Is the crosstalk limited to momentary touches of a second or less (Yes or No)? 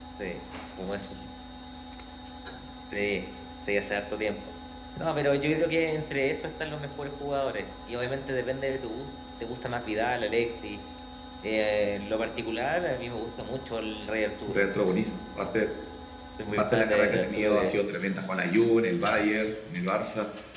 No